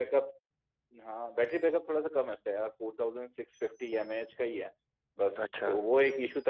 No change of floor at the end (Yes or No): Yes